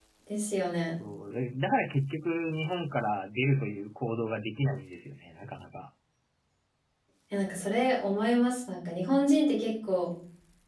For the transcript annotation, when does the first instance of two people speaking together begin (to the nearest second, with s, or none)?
none